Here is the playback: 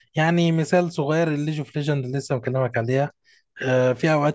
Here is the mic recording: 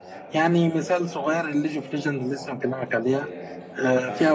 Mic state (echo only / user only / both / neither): both